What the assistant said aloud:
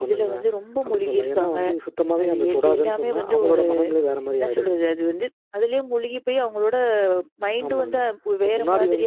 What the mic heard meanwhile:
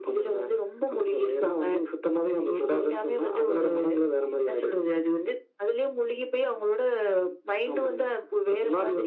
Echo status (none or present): present